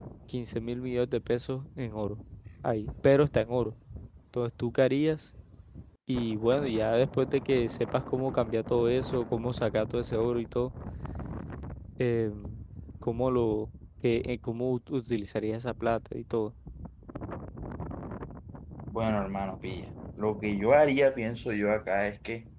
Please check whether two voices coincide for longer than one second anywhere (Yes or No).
No